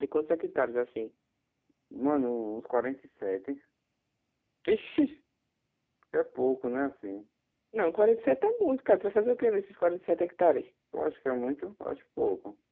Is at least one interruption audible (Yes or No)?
No